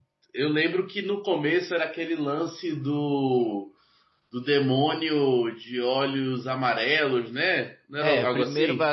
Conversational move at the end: taking over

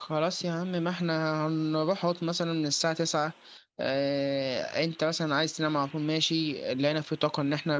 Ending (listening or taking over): listening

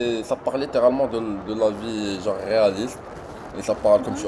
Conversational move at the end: listening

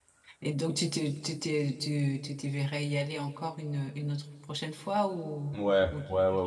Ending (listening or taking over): taking over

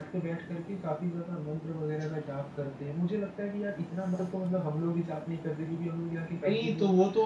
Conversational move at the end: taking over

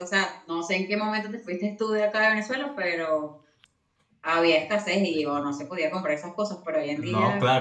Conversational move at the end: taking over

